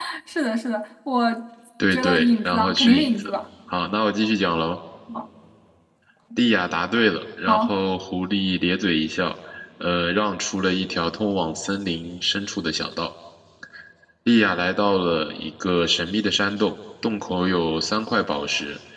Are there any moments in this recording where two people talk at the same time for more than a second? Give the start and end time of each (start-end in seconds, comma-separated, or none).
1.9-3.3